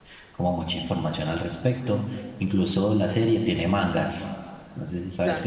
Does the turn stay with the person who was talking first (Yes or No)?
No